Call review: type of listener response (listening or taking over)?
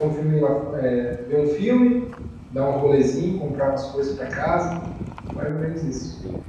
taking over